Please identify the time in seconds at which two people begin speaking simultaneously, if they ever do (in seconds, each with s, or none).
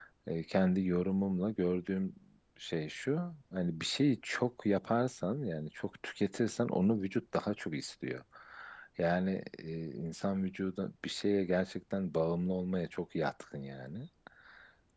none